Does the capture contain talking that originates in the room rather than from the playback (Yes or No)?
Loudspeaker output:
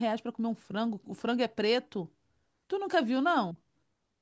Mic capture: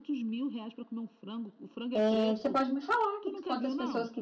Yes